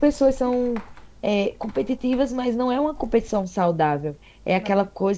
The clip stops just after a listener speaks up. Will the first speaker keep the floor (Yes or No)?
Yes